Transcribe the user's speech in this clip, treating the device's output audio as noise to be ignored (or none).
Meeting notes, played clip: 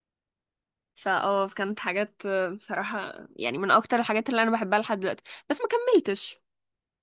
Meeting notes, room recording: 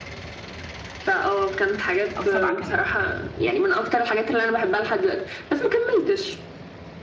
او سبعة كمان